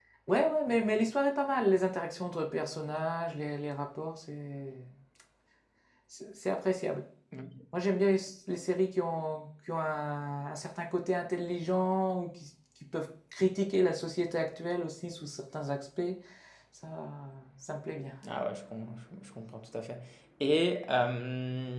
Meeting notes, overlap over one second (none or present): none